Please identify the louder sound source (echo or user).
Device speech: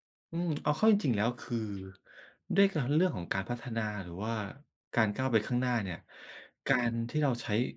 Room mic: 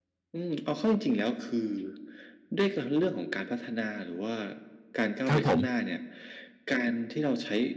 user